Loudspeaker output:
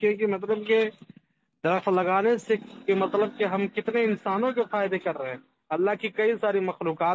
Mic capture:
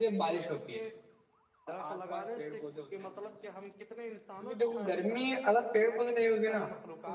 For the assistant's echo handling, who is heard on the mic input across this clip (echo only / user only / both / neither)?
both